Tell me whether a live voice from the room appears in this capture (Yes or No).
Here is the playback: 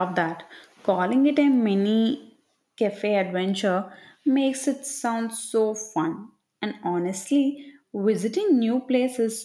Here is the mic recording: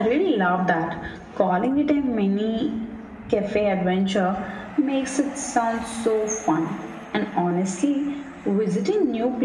No